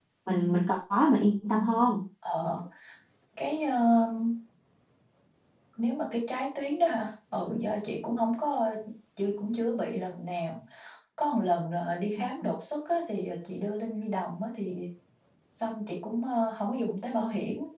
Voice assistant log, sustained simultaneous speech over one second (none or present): none